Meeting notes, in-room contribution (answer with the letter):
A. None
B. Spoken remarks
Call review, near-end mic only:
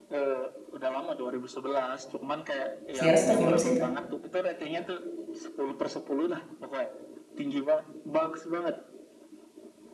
B